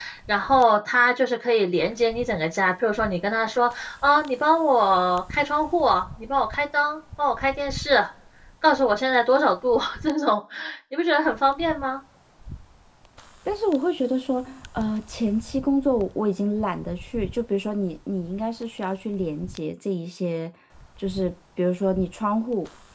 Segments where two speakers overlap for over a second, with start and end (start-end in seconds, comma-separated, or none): none